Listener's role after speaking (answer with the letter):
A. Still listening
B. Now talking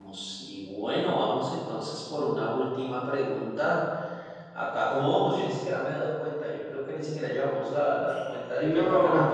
A